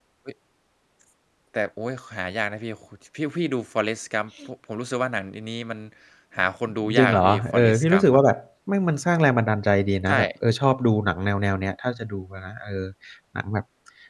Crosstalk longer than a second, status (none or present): present